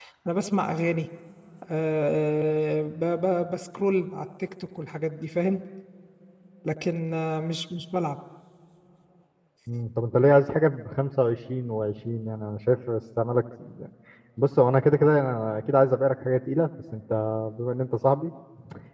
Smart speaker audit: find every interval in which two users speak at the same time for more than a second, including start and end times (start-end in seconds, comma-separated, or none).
none